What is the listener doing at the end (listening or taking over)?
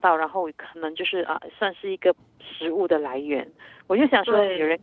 listening